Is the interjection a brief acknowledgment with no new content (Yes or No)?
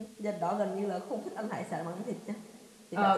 No